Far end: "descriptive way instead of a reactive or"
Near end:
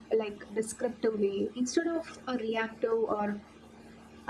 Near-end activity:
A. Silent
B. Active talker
A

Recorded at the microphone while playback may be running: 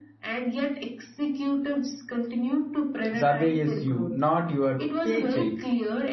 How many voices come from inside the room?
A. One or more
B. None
A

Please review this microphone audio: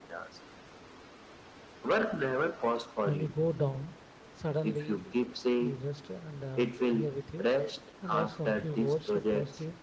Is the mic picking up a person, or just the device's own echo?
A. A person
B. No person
A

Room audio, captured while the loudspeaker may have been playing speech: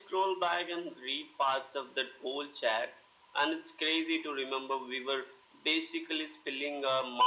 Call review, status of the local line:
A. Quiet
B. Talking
A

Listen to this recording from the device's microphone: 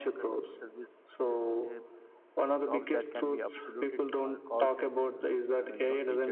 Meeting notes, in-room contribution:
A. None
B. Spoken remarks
B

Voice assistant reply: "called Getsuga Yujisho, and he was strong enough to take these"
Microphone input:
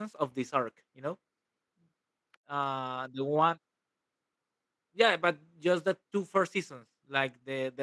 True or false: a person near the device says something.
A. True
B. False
A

